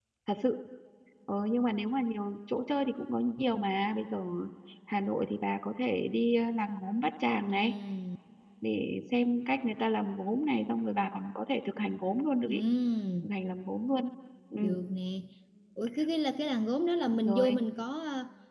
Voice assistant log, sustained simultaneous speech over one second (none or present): none